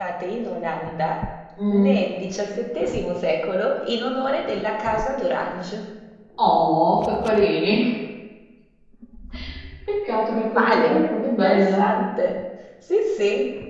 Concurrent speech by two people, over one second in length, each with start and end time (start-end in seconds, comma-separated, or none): 10.5-11.8